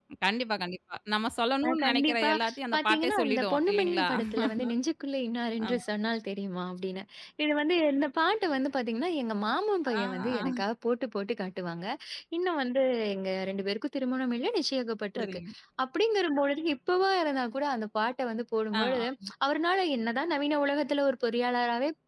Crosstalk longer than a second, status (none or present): present